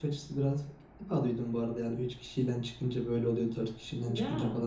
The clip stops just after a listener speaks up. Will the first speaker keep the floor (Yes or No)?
Yes